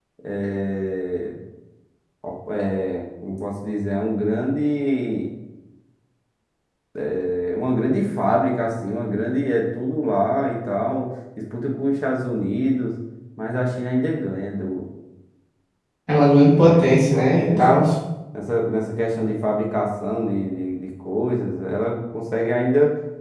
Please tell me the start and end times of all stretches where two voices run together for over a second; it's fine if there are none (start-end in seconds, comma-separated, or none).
16.6-17.8